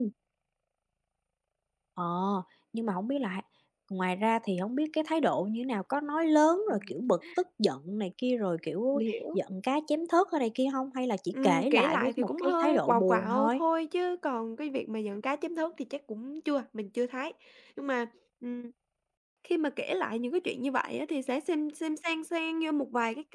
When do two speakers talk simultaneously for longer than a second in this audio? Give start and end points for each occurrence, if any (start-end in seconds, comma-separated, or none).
11.3-13.6